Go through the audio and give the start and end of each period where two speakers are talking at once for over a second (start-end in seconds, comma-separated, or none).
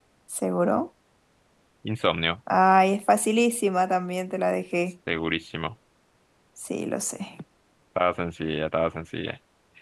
none